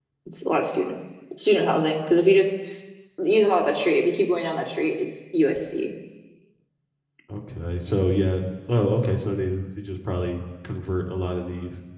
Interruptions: none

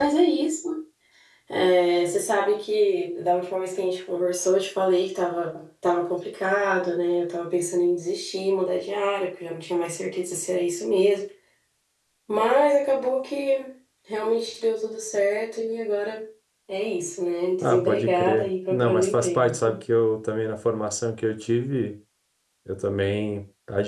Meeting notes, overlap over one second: present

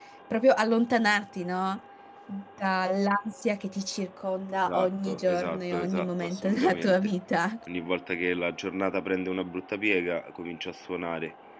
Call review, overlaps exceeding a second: present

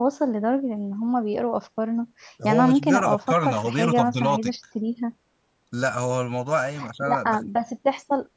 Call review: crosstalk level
present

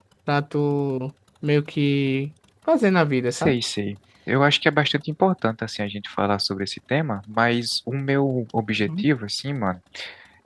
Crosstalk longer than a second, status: none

